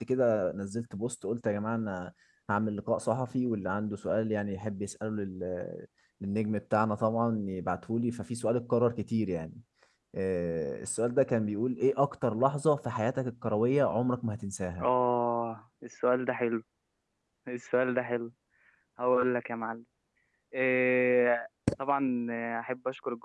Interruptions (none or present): none